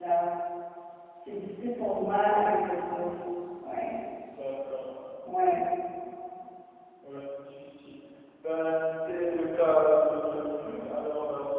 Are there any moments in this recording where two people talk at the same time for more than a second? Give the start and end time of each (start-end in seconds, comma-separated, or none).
none